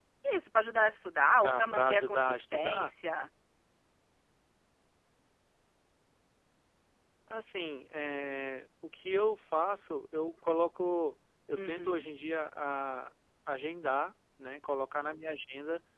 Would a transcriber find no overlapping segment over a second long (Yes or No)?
No